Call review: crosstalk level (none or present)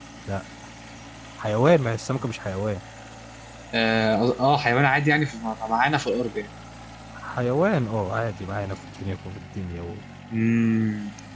none